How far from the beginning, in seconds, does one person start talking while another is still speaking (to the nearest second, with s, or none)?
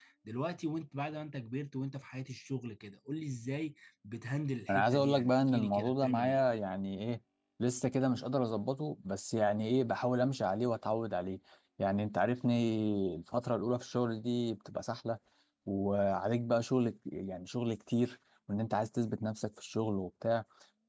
5 s